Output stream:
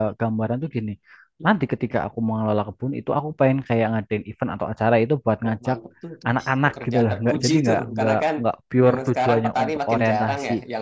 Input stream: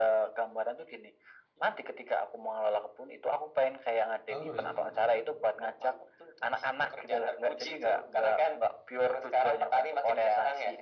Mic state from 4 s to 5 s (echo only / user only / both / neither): both